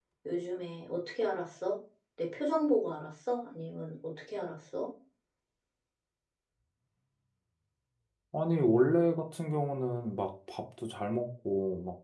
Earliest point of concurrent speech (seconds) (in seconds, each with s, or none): none